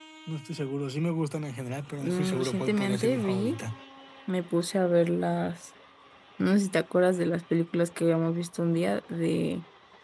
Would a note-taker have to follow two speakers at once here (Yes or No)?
Yes